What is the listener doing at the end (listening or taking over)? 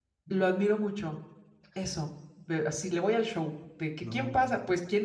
listening